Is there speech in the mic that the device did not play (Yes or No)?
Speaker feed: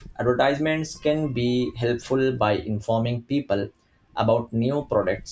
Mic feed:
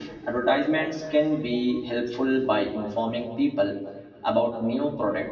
No